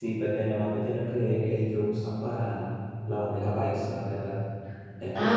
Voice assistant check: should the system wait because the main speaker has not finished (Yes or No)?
No